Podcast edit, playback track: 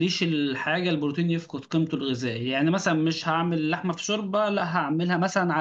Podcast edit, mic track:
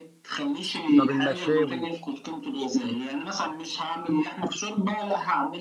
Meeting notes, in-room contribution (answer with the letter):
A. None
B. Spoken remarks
B